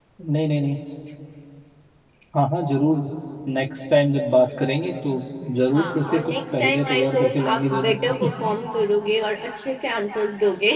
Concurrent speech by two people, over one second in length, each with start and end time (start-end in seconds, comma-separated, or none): 5.7-7.9